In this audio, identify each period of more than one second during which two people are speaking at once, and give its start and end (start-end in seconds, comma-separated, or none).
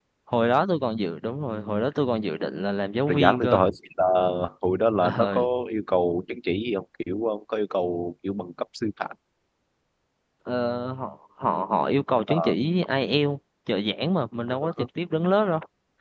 none